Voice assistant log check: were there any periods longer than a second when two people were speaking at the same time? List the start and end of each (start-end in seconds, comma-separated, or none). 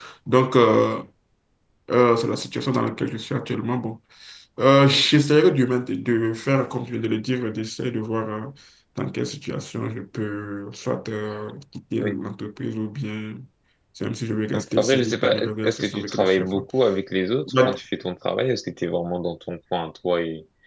14.8-16.5